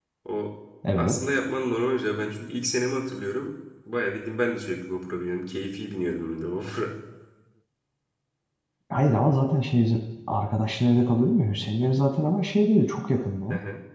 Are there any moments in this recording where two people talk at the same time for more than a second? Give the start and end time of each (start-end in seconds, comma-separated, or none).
none